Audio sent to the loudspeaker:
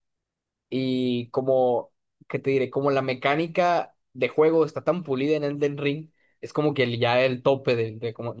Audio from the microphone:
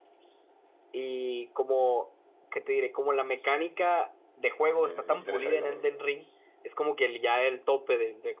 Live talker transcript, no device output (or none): me, me interesa, digamos,